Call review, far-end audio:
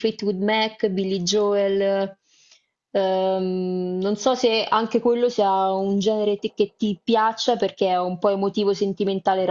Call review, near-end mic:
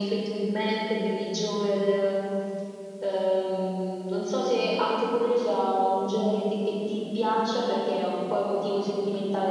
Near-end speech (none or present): none